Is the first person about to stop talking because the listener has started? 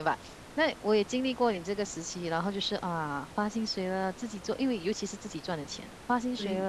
No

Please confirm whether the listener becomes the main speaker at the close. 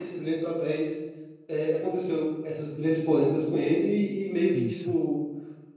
No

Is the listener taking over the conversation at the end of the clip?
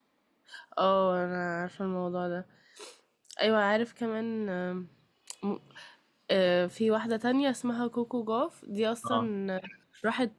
No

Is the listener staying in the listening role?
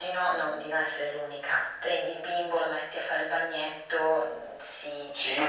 No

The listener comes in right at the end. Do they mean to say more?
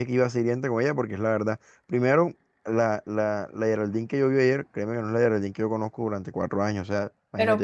Yes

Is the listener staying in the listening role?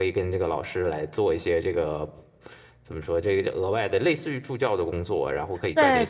No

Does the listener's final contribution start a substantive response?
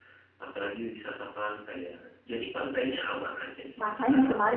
Yes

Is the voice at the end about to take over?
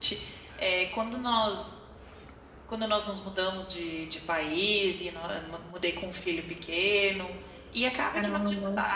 No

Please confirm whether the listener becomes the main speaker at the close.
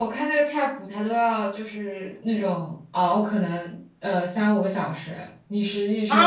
Yes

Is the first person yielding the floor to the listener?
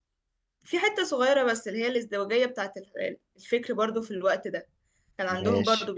No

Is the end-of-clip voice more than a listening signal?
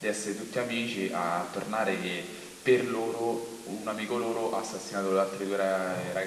Yes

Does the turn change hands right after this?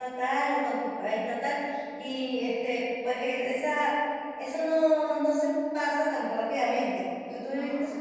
No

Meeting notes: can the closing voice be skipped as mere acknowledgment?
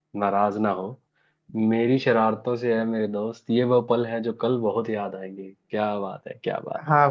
No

